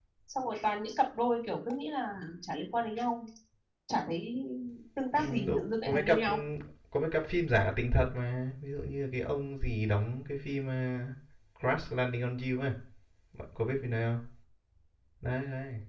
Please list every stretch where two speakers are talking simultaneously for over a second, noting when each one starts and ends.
5.2-6.4

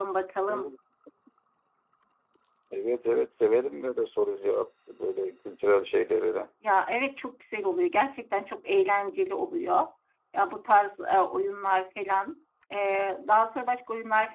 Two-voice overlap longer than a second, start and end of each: none

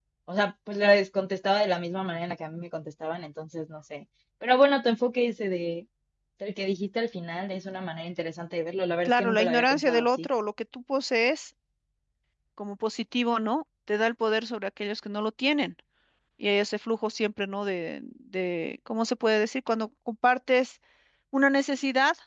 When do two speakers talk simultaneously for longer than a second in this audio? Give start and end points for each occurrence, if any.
9.0-10.3

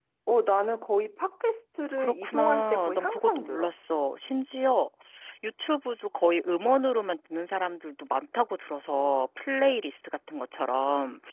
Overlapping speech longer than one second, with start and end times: 2.0-3.7

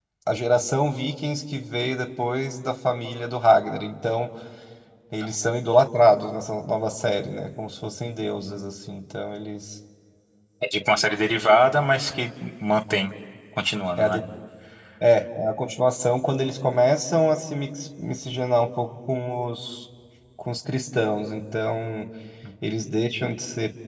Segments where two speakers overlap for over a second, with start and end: none

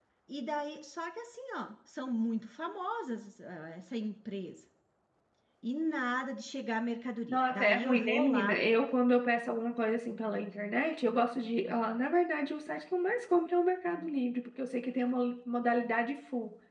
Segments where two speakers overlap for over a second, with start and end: 7.3-8.6

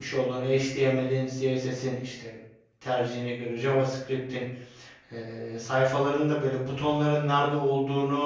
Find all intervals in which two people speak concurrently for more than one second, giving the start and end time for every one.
none

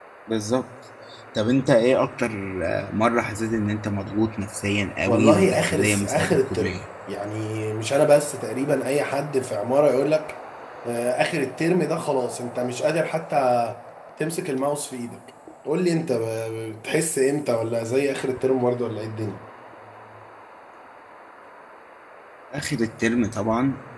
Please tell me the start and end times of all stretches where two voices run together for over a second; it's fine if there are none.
5.1-6.8

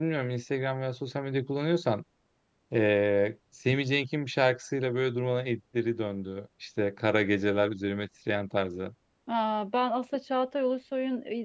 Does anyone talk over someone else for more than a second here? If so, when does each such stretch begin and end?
none

